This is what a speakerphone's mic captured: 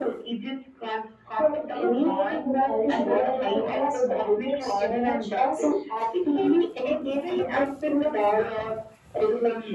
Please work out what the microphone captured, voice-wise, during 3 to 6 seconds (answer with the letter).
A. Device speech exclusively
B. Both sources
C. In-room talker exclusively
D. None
B